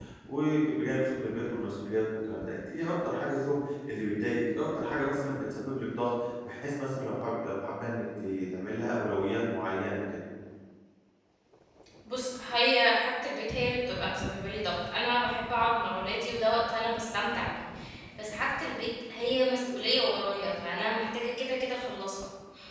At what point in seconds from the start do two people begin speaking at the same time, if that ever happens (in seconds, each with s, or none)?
none